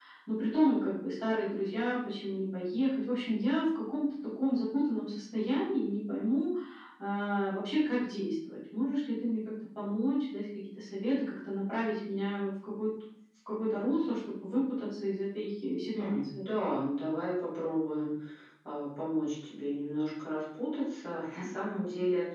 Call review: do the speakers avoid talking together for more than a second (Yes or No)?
Yes